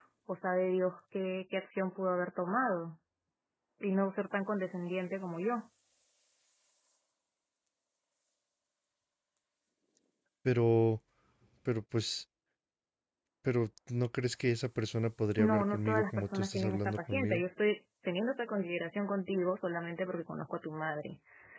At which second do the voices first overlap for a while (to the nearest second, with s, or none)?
15 s